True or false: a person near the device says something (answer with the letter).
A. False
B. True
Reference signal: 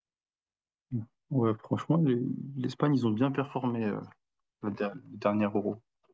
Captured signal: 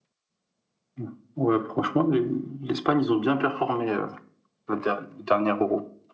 A